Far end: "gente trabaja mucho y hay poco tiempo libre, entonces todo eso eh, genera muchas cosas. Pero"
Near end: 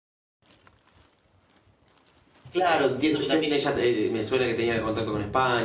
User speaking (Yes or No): Yes